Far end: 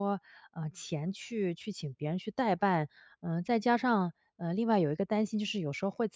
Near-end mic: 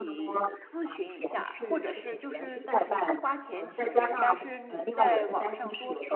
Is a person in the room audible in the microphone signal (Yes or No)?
Yes